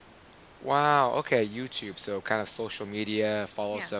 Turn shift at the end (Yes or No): No